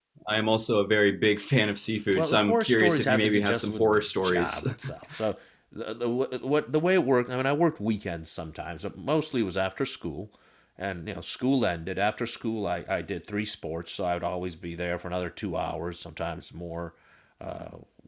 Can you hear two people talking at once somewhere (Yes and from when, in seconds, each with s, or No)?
Yes, from 2.2 s